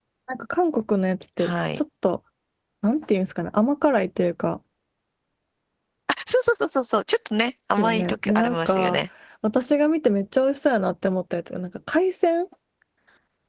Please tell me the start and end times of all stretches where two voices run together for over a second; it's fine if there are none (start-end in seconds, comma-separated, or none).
7.8-9.0